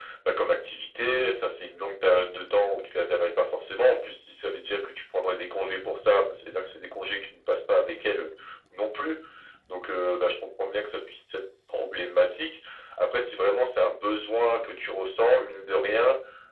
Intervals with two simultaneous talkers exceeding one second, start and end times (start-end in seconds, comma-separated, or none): none